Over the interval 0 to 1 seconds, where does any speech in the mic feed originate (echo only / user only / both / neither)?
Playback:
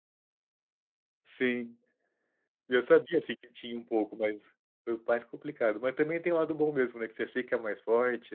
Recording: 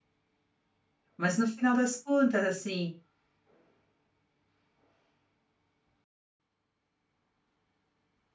neither